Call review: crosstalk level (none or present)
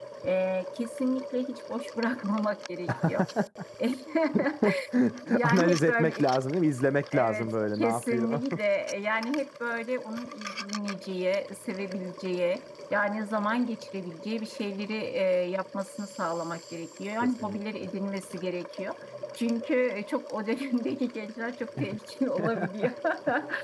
present